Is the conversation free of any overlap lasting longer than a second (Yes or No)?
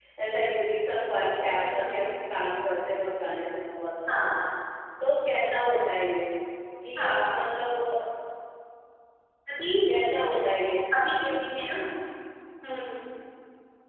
Yes